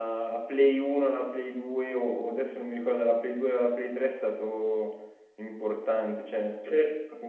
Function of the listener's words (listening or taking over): listening